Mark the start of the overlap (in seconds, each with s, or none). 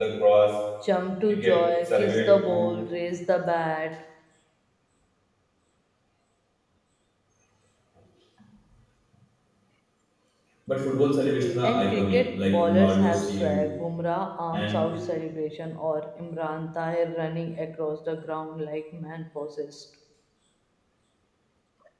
1.3 s